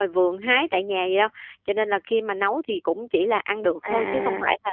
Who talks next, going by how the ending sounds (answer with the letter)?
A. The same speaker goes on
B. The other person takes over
B